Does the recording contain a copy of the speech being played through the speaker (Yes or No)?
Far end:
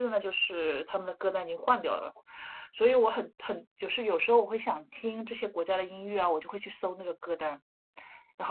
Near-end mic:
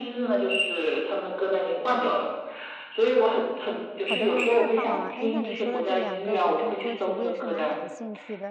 Yes